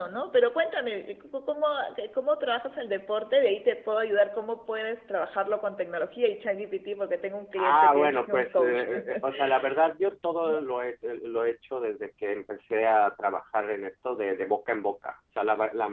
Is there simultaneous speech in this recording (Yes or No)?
Yes